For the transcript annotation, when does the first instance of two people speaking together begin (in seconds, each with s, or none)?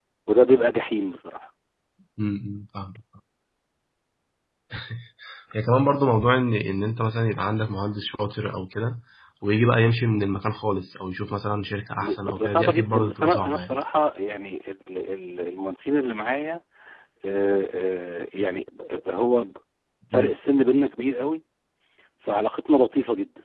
12.0 s